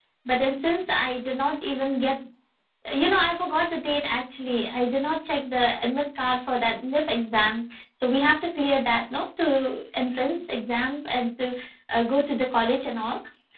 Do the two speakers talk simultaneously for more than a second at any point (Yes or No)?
No